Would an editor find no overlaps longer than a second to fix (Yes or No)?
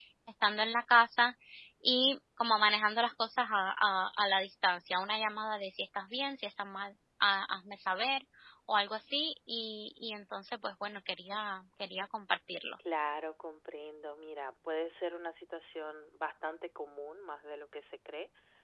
Yes